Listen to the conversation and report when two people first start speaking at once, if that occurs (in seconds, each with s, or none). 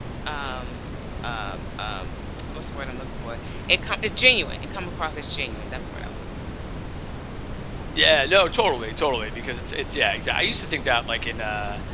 none